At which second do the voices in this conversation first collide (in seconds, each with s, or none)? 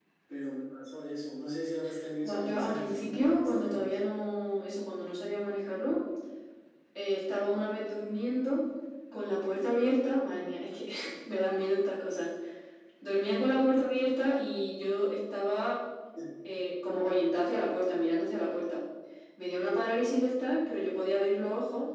2.2 s